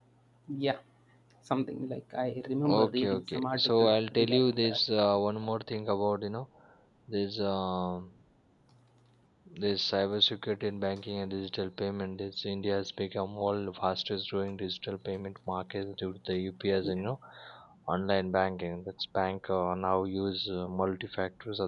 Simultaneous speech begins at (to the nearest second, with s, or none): 3 s